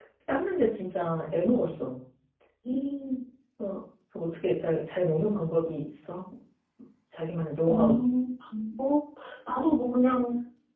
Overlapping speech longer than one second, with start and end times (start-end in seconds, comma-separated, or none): none